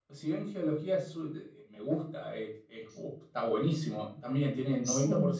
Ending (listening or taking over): listening